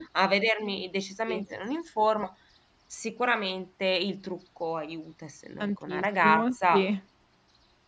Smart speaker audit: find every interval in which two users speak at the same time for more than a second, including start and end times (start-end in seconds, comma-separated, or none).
5.6-6.9